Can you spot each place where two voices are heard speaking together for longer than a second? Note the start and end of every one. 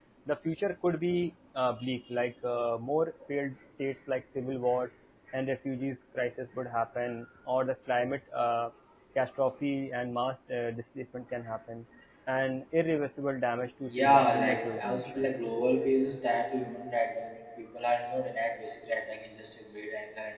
13.9-15.2

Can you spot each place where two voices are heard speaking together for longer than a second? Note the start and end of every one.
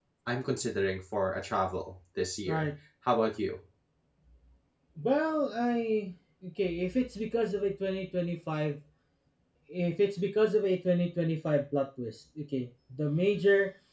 none

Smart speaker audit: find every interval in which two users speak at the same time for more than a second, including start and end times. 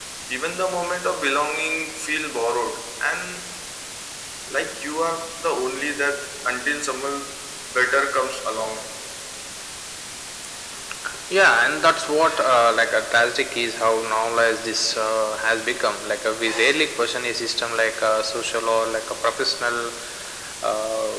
none

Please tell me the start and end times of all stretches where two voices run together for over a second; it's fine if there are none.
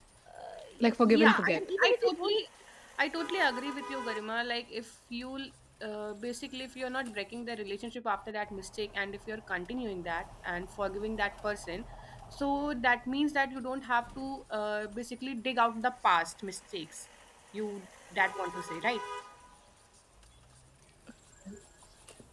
1.0-2.4

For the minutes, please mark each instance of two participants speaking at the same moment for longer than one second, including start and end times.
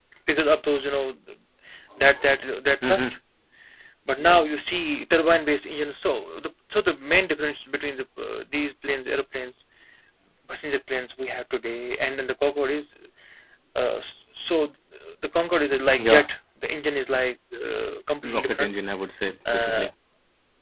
none

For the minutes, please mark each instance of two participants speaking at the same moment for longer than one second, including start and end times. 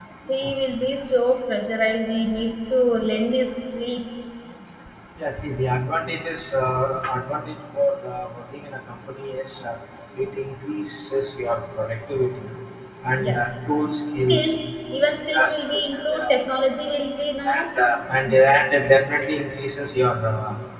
none

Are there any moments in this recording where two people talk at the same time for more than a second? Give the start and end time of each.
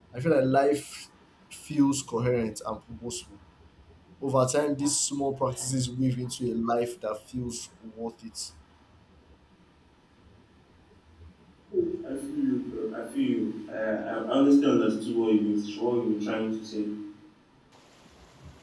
none

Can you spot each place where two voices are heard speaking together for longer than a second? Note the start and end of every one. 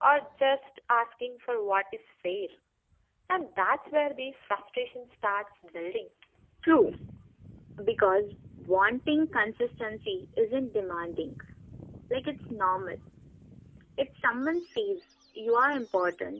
none

